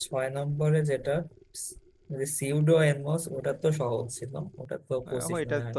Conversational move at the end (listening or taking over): taking over